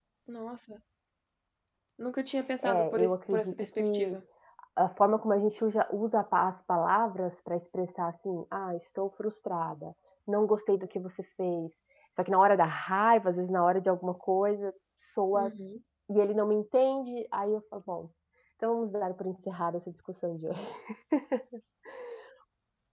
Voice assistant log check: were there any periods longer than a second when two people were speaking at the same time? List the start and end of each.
2.6-4.2

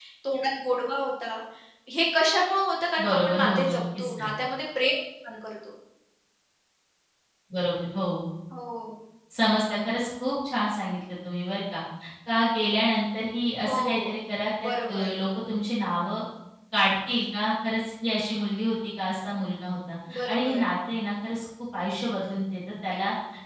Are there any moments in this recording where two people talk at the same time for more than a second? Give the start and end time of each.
3.0-4.3

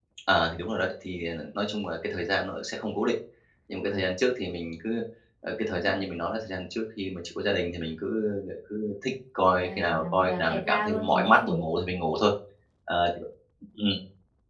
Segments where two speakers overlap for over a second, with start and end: 9.6-11.6

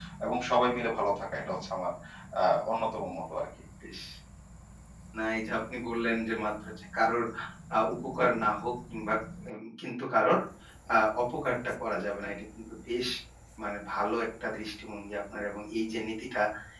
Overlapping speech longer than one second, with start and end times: none

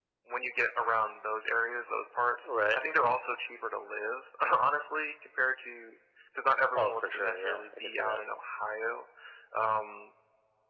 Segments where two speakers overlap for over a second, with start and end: 6.8-8.2

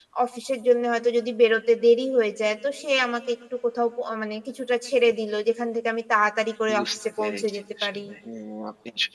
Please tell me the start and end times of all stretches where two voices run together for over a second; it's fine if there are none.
6.8-8.0

